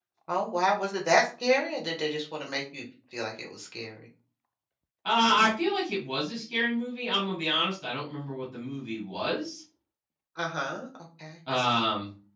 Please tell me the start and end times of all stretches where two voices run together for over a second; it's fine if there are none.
none

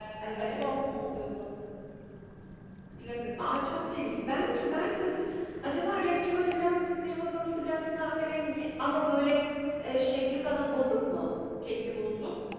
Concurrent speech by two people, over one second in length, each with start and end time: none

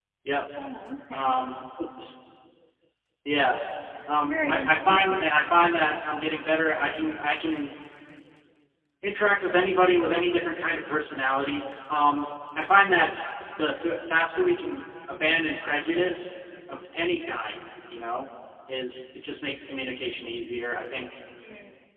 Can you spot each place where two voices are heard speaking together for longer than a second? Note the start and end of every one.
4.3-5.6

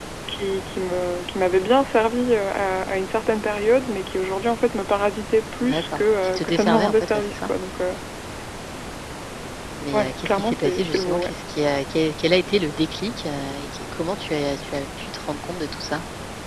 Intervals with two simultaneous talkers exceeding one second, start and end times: 5.6-7.5, 9.9-11.3

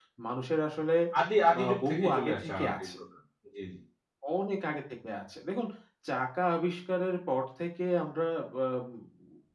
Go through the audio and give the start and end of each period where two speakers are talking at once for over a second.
1.6-2.9

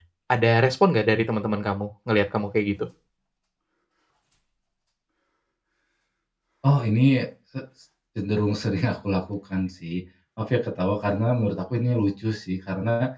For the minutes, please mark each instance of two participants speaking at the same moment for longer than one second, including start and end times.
none

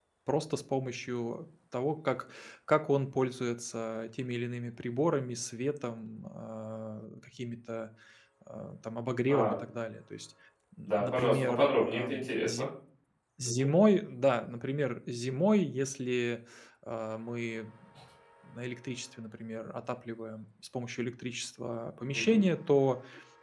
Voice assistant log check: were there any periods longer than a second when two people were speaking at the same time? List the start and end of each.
10.8-12.7

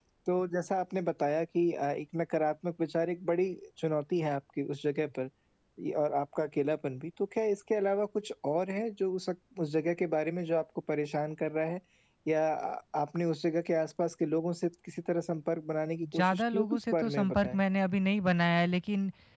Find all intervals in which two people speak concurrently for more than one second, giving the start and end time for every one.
16.1-17.6

